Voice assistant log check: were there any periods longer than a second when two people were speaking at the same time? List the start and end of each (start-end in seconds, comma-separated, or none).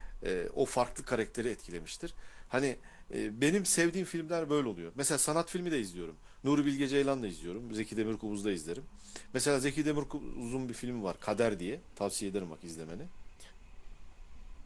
none